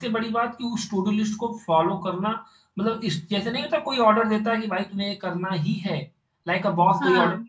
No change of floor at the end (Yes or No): Yes